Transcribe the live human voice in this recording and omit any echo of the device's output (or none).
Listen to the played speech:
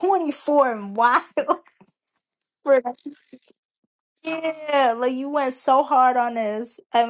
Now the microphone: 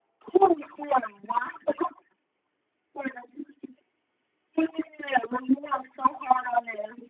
none